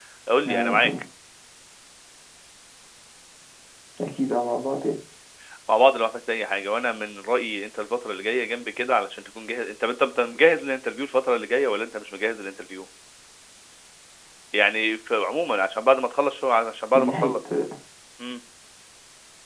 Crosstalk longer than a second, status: none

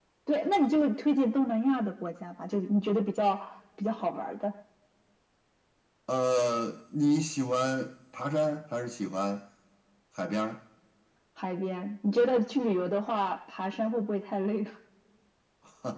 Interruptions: none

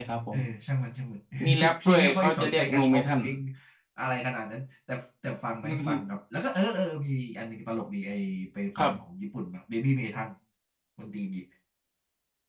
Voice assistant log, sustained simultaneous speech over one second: present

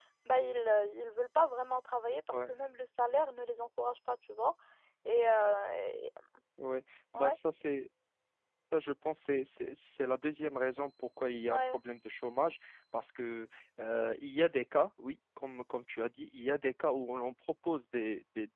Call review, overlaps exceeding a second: none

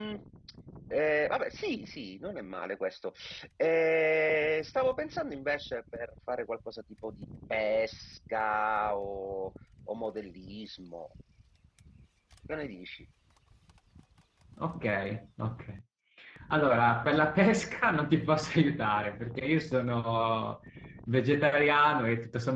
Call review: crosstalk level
none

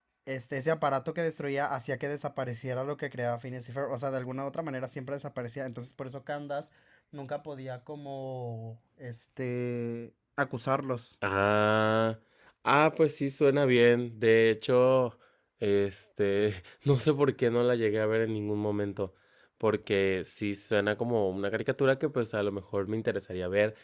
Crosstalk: none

